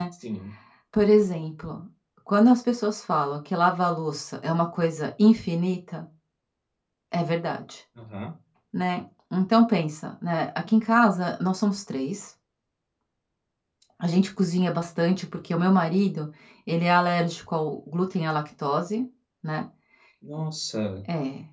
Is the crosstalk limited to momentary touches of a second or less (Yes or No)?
Yes